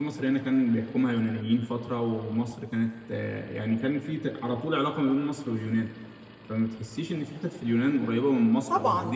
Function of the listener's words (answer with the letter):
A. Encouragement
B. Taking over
B